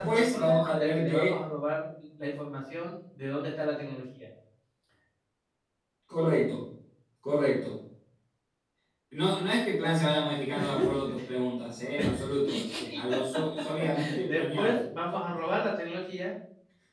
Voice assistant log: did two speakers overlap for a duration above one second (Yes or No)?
Yes